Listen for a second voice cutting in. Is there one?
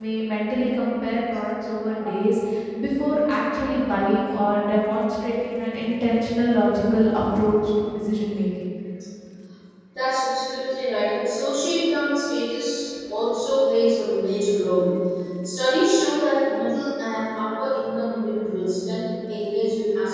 No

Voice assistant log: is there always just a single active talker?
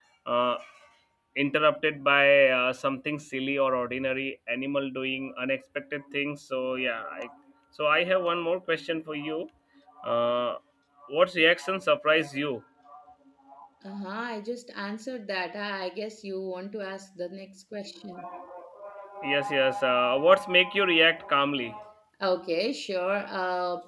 Yes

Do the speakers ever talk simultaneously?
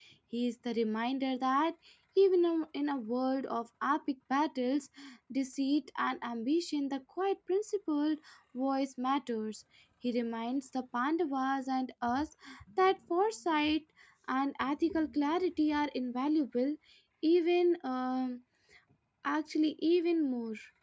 No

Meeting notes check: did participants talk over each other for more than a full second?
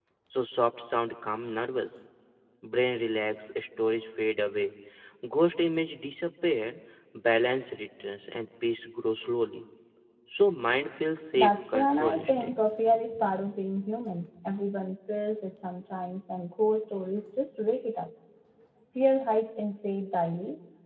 Yes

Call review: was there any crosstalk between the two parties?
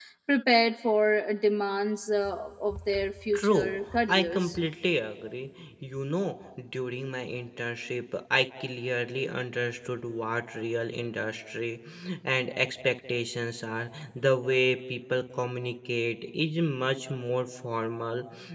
Yes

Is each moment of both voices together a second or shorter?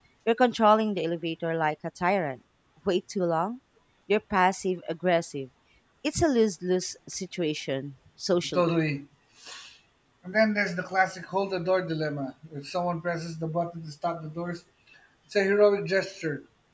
Yes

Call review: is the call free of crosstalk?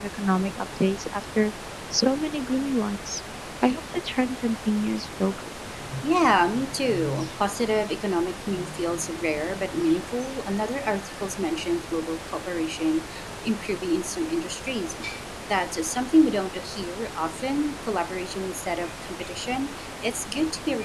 Yes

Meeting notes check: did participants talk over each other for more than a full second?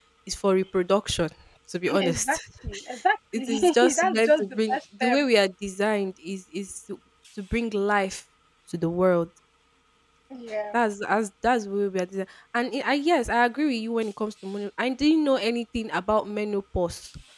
Yes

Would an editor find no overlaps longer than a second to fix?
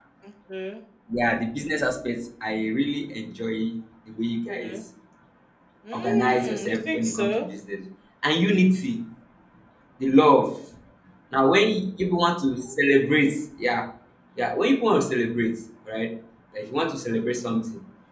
No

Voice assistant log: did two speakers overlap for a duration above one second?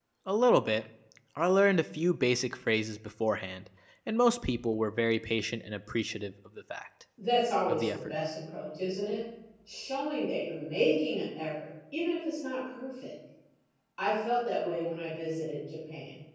No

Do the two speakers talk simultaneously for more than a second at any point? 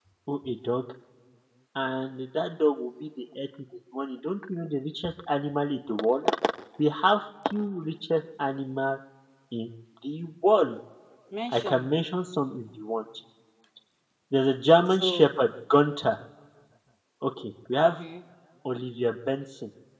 No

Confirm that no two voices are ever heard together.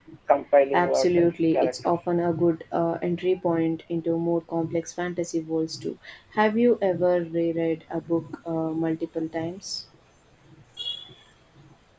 No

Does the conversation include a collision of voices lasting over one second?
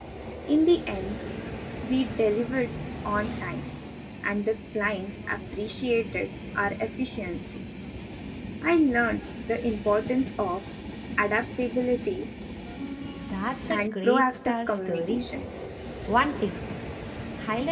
Yes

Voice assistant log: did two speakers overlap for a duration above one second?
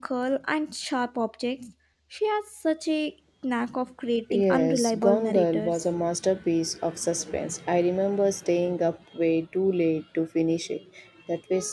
Yes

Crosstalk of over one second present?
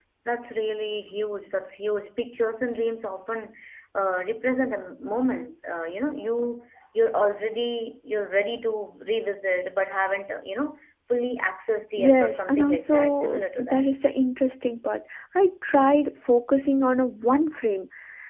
Yes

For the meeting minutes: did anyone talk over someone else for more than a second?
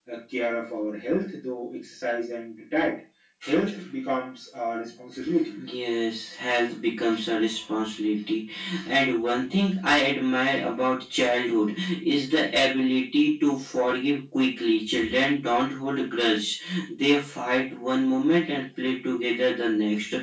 No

